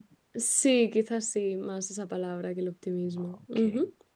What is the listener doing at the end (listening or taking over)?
taking over